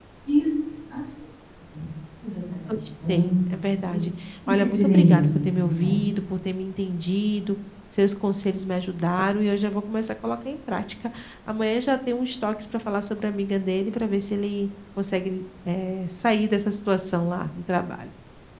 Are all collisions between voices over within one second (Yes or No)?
No